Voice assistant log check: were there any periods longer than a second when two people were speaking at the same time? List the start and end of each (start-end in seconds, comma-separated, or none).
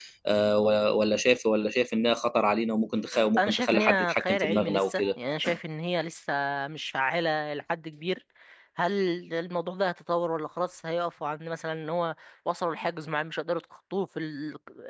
3.4-5.0